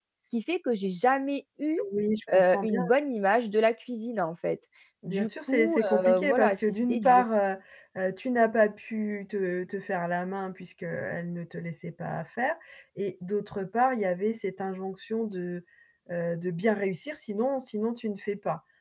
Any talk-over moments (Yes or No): Yes